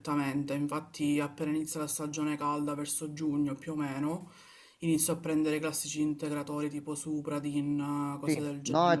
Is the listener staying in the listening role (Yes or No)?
No